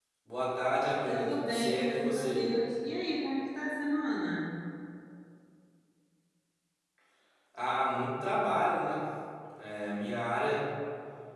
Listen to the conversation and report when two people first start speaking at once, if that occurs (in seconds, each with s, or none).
1.1 s